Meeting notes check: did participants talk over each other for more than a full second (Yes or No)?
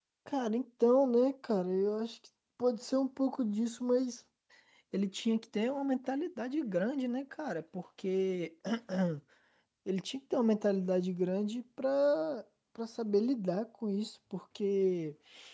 No